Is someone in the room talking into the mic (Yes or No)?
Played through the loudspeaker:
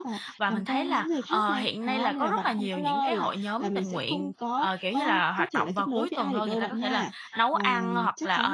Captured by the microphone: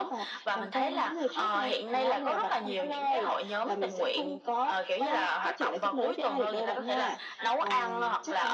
No